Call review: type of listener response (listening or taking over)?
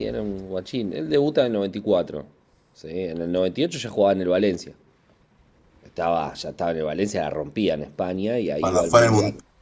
taking over